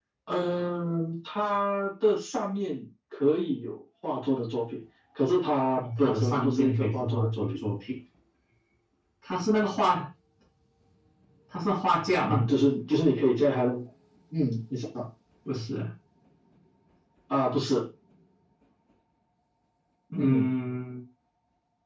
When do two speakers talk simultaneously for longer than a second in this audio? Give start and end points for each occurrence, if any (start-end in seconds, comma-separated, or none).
5.8-7.5